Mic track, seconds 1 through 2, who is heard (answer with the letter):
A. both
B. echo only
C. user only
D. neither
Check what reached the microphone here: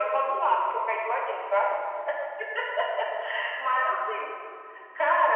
B